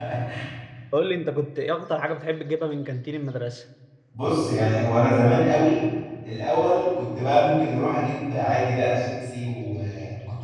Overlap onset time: none

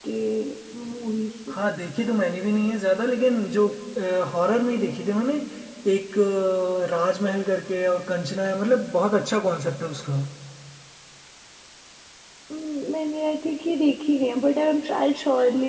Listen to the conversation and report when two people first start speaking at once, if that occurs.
none

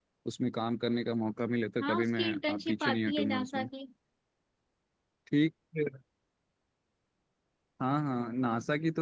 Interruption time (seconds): 1.8 s

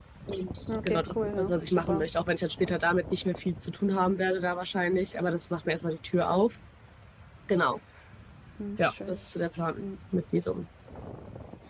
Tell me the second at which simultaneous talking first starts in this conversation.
0.8 s

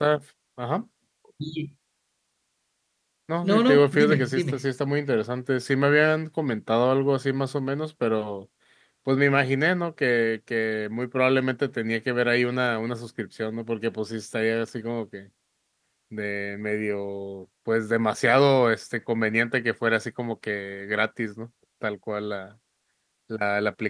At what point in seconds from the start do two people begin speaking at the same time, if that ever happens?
3.4 s

